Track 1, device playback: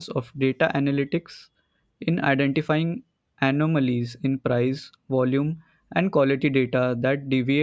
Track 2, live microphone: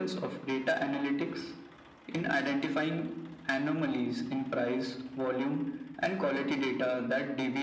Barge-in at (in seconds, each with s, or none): none